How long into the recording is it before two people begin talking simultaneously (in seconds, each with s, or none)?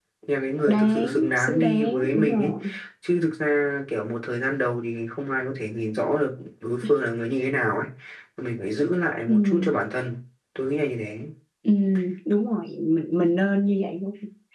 0.7 s